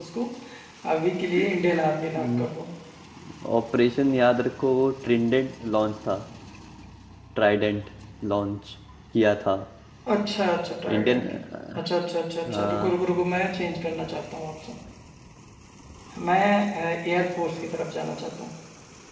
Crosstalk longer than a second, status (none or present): none